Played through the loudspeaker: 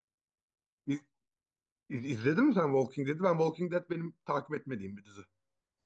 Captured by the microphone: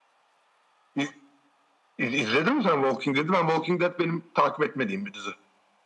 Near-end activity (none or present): none